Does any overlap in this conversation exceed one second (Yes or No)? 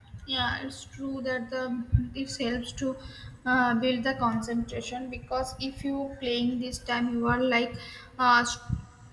No